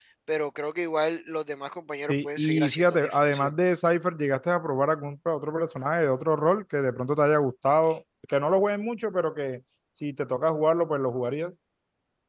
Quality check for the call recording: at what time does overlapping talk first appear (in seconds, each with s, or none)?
2.1 s